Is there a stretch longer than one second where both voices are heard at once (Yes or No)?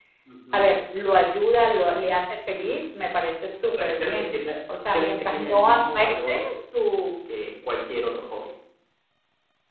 Yes